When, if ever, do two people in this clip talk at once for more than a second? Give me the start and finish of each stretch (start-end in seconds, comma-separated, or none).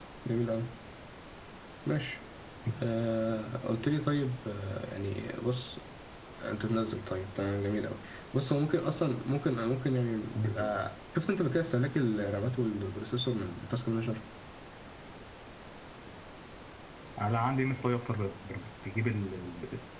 none